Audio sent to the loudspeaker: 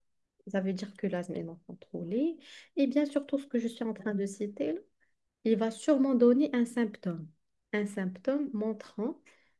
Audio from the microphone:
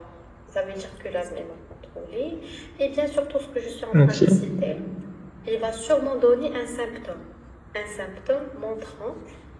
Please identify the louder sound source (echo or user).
user